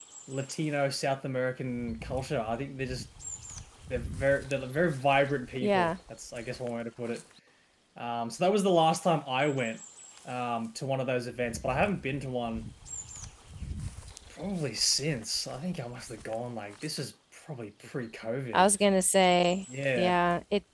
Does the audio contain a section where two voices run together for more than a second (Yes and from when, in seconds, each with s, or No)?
No